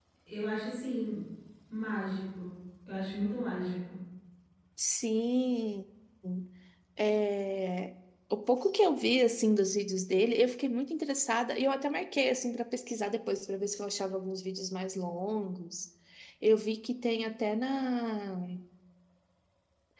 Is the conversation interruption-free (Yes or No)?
Yes